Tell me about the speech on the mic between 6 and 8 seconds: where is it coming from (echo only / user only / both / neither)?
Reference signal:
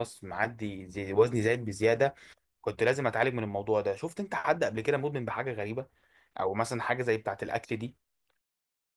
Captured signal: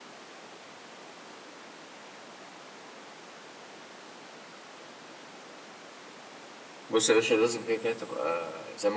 user only